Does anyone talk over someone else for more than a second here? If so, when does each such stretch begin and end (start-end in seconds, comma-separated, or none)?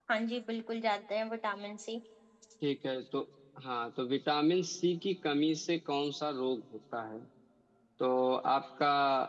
none